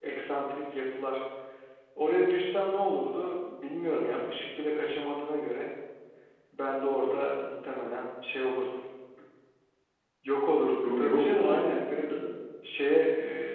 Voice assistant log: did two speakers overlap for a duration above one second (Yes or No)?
Yes